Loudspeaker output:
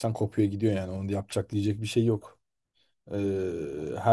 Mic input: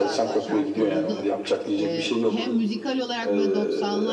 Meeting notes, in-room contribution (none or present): present